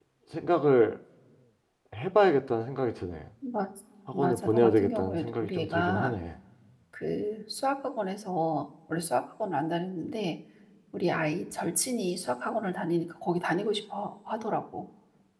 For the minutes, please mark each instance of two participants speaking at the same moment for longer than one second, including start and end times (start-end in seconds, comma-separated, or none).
4.1-6.1